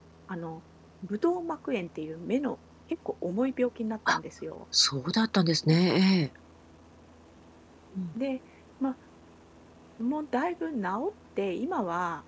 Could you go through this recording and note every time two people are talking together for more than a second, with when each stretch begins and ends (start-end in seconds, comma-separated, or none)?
none